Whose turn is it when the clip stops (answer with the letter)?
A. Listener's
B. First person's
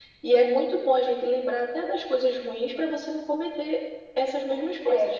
A